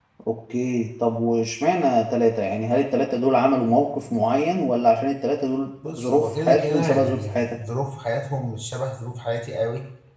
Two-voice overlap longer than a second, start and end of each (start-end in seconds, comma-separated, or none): 5.9-7.6